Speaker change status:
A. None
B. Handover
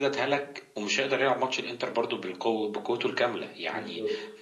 A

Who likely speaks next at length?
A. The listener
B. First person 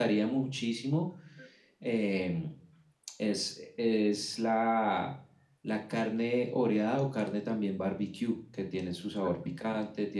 B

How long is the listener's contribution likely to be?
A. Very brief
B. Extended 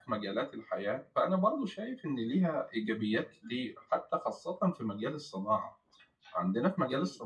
A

